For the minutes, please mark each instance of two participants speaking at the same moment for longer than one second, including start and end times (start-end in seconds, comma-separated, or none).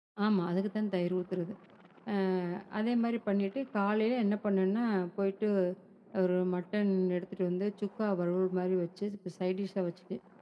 none